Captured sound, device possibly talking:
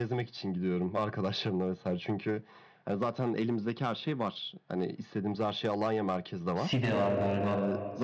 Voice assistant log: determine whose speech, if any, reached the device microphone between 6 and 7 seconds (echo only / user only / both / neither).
both